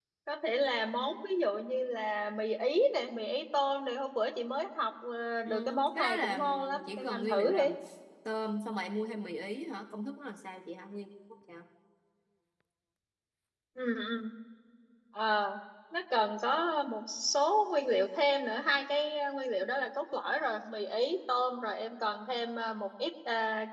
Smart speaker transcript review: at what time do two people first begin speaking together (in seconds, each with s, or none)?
5.5 s